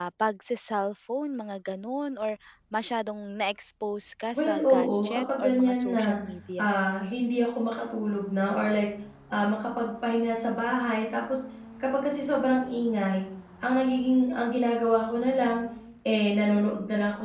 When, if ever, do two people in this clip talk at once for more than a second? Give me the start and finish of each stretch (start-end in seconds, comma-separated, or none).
4.4-6.2